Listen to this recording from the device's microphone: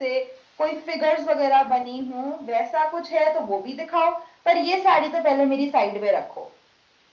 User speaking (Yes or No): No